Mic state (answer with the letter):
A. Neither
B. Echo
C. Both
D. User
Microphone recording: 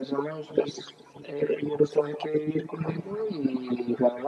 B